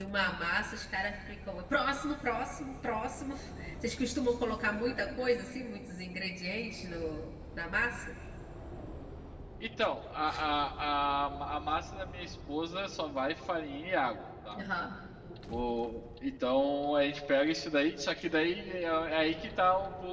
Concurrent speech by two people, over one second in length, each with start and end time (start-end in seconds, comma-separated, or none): none